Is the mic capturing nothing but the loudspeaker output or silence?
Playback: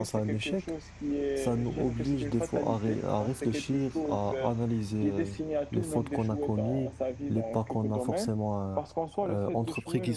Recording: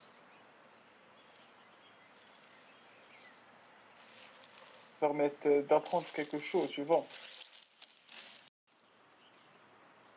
No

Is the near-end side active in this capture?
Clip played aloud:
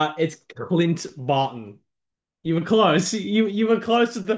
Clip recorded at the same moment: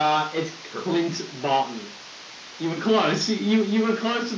No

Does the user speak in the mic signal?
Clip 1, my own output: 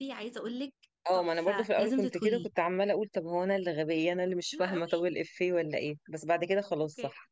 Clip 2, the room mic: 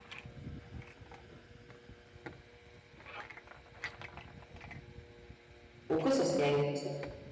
Yes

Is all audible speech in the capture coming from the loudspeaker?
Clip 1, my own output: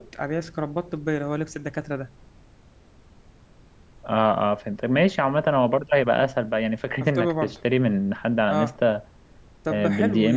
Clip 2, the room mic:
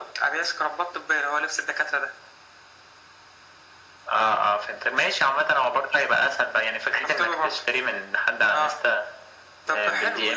Yes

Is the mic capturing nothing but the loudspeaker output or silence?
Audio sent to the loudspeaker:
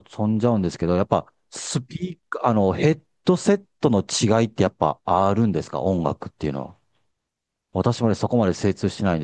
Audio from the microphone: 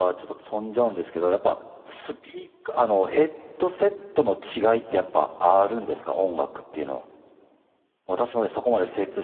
Yes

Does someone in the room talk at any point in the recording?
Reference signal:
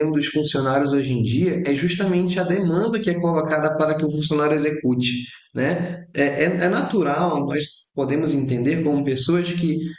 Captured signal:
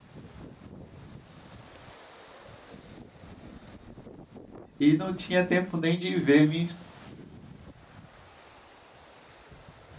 Yes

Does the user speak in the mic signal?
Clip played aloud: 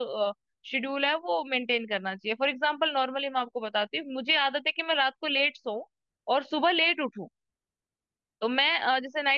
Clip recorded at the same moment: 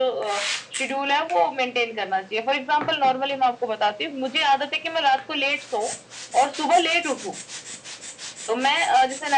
No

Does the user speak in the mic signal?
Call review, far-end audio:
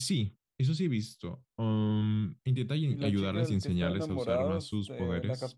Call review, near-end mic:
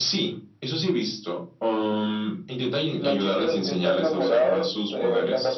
No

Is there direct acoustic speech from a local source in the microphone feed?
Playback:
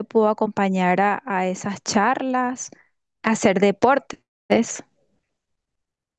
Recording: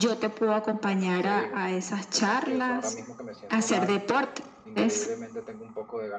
Yes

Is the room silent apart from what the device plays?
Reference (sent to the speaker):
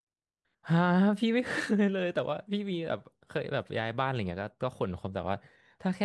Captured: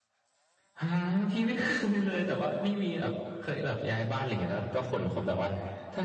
Yes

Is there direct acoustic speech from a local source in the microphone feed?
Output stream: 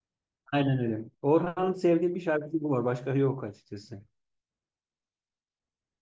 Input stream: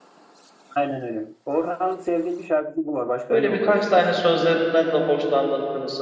Yes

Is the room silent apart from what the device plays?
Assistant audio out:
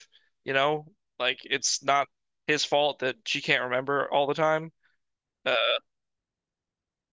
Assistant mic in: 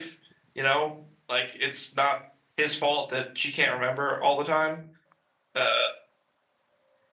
Yes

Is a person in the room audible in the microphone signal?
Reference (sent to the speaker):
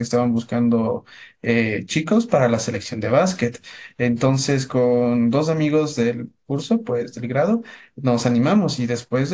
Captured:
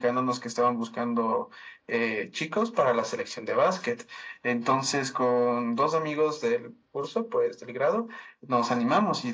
No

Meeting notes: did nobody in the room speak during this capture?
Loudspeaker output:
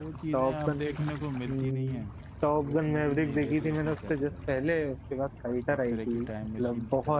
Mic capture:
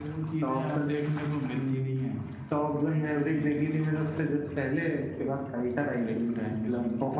No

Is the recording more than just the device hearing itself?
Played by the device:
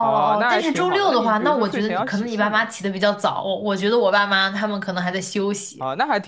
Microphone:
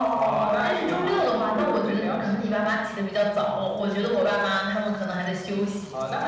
Yes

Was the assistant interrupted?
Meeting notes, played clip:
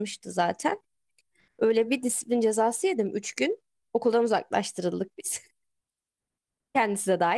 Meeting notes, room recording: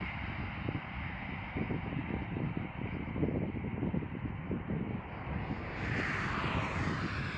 No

